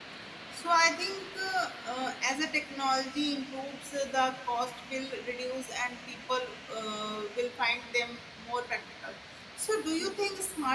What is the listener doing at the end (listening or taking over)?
listening